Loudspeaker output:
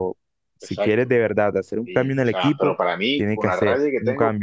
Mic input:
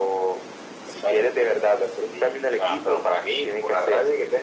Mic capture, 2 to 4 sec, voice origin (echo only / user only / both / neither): echo only